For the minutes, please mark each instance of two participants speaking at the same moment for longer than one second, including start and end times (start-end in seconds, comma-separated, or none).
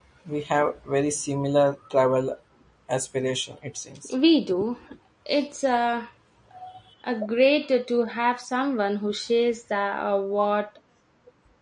none